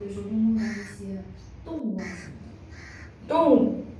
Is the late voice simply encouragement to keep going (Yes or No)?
No